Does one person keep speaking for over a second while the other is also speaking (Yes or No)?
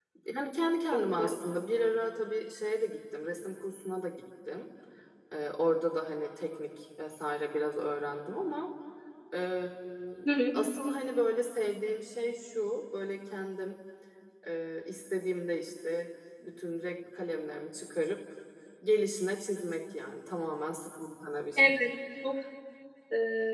No